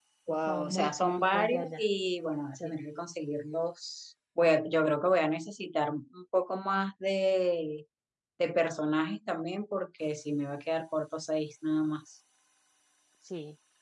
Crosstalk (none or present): present